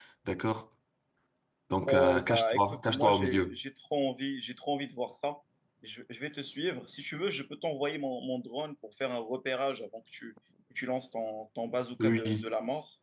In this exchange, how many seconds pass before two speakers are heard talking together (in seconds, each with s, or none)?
1.8 s